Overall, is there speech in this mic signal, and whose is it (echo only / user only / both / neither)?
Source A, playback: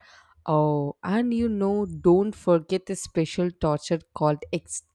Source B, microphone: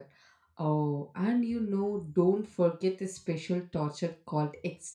echo only